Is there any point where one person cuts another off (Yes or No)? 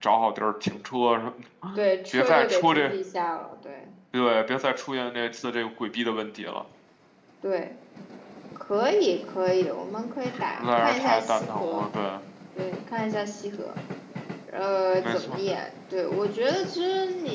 Yes